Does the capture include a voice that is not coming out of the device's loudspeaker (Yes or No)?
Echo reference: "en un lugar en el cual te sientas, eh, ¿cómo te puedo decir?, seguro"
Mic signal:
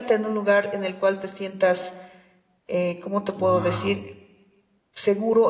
Yes